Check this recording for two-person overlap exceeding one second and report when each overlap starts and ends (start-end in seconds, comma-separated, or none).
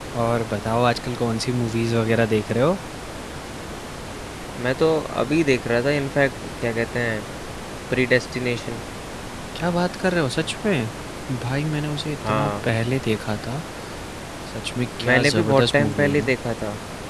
15.1-16.3